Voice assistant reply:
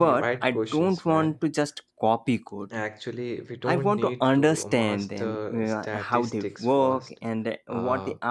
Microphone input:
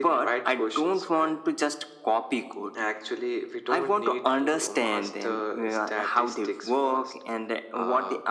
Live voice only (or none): none